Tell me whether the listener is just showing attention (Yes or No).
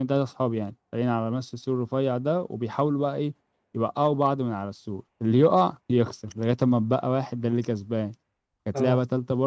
Yes